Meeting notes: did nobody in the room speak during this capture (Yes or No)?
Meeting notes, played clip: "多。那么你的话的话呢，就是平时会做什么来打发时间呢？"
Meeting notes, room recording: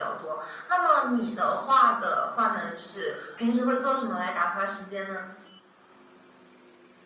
Yes